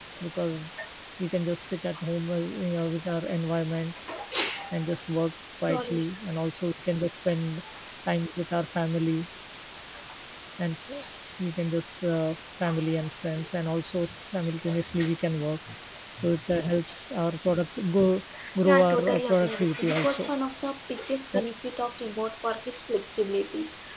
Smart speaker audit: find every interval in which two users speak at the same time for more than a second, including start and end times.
18.6-20.3

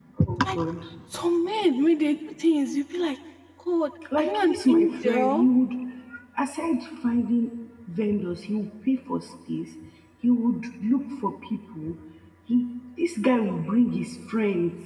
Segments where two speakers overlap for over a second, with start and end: 4.2-5.5

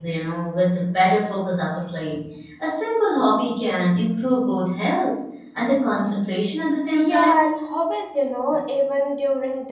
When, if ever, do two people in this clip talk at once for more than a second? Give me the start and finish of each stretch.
none

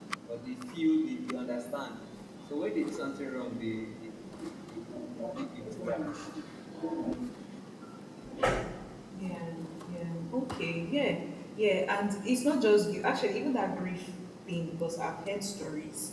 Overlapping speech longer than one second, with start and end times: none

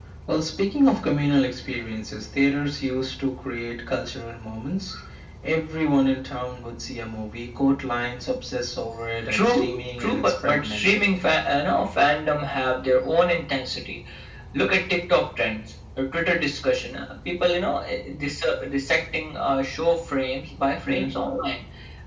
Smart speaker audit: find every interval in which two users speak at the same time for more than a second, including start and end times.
9.3-11.1

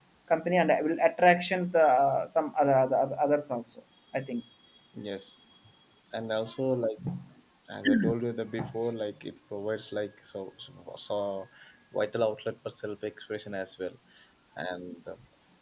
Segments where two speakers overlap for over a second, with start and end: none

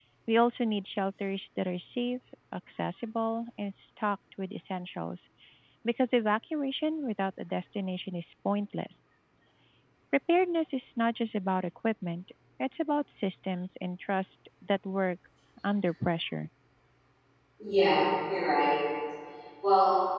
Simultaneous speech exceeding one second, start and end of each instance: none

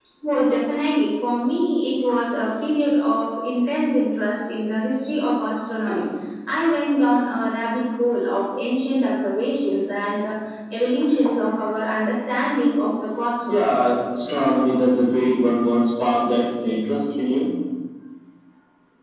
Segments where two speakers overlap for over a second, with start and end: none

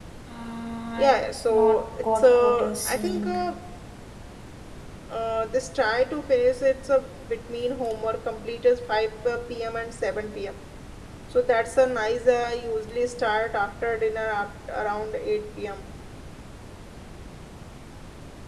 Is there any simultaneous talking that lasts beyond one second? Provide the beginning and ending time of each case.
1.5-3.4

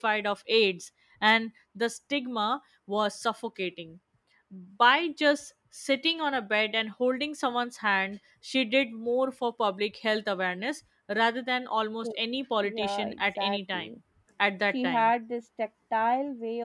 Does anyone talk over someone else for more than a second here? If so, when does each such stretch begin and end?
12.6-13.9

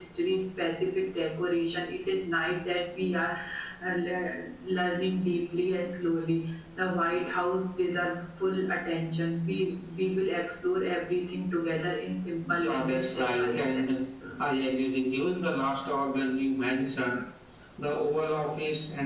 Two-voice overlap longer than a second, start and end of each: 12.5-13.9

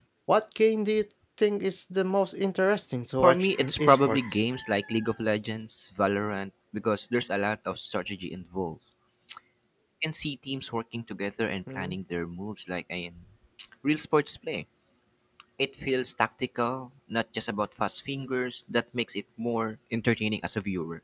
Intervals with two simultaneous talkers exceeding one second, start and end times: 3.2-4.4

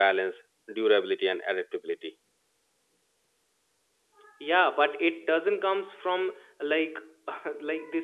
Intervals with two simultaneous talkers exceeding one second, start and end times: none

